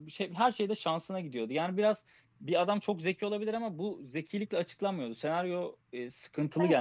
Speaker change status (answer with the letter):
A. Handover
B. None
B